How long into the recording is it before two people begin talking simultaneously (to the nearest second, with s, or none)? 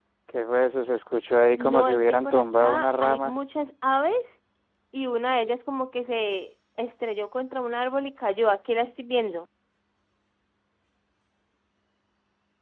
2 s